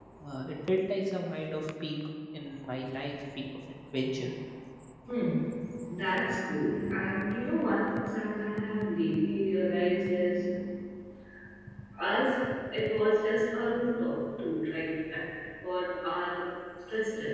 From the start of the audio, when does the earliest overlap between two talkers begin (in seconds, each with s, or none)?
none